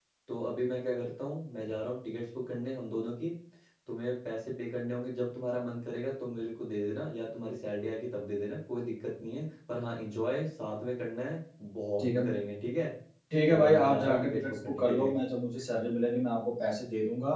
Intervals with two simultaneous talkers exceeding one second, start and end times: 13.5-15.1

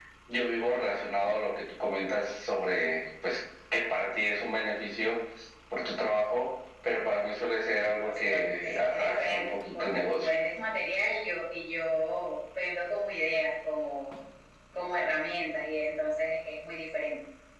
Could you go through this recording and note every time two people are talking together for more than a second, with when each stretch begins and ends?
7.8-10.3

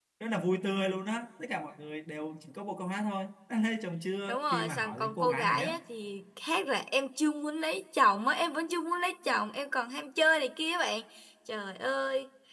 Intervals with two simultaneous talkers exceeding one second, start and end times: 4.3-5.7

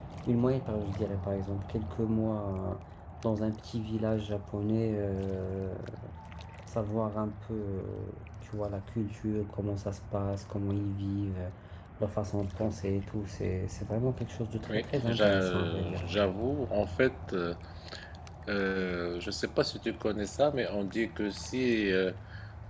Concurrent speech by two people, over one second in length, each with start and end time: 14.7-16.0

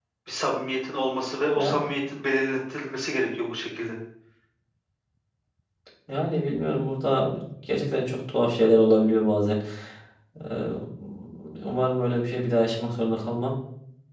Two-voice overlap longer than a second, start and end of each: none

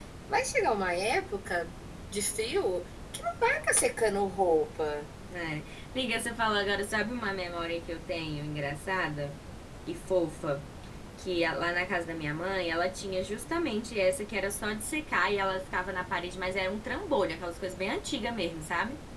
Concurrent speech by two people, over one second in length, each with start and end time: none

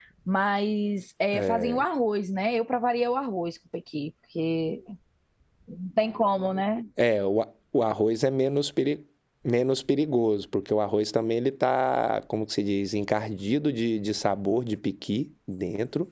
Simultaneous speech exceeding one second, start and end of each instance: none

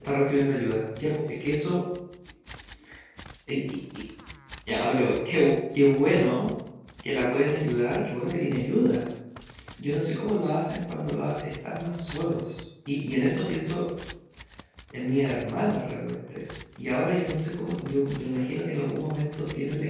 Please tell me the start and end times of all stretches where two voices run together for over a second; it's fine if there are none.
none

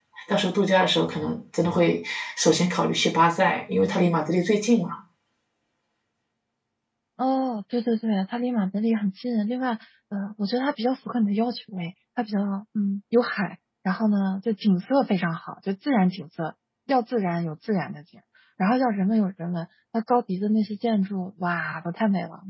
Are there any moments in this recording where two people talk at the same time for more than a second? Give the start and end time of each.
none

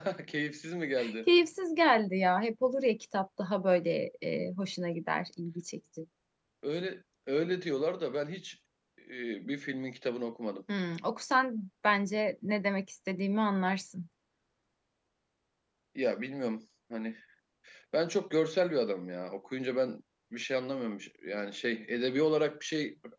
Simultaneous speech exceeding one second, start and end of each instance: none

